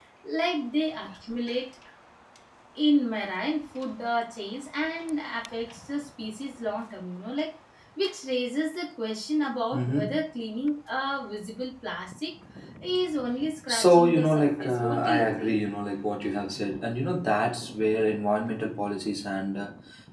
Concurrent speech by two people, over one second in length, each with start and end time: 13.7-15.6

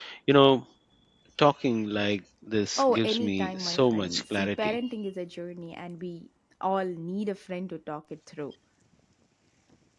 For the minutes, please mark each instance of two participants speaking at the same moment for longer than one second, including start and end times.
2.8-4.8

